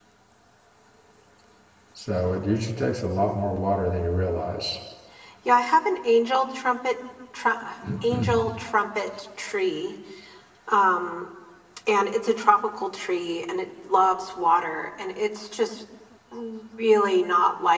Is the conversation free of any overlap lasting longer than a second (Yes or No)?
Yes